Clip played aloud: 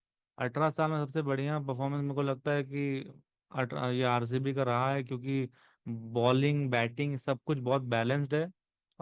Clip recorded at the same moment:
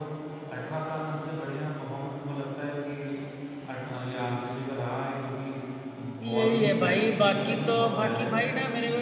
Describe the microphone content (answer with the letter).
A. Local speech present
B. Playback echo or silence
A